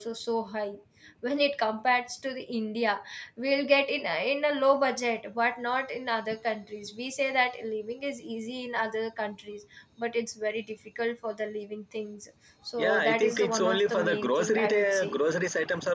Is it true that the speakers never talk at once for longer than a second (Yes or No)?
No